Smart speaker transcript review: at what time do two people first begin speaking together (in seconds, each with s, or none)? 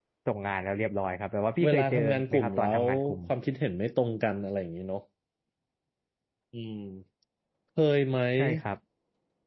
1.6 s